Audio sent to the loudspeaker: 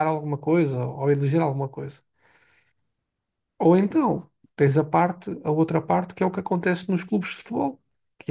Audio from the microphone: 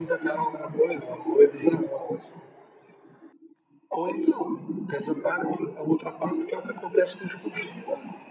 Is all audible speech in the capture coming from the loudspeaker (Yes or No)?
Yes